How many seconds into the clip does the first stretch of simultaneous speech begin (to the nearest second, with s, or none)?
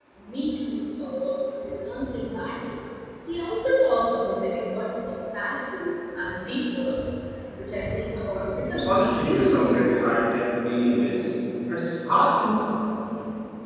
9 s